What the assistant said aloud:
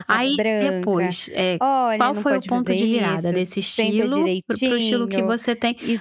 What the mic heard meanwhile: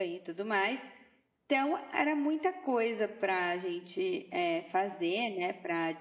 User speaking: Yes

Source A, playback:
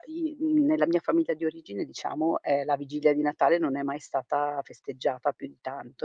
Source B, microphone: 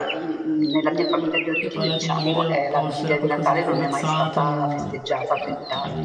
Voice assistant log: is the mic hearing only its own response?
No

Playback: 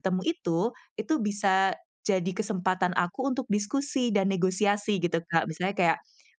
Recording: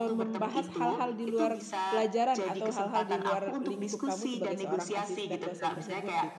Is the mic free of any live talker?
No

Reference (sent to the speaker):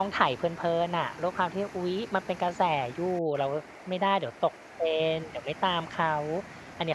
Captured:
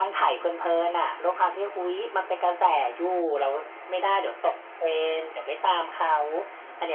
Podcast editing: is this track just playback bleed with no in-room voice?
Yes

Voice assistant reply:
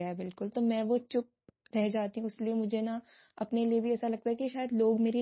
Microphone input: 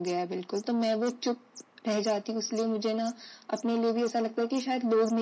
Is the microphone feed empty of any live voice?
Yes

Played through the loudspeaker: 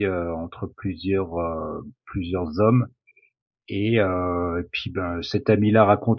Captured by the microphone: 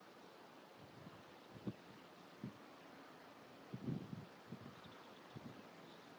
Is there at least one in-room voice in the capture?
No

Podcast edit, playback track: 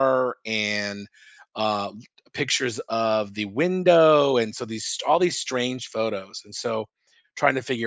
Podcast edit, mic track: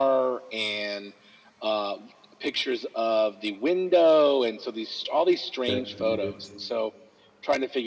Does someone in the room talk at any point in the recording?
Yes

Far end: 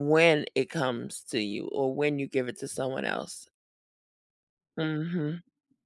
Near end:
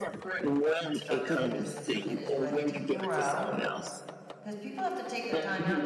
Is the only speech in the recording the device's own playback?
No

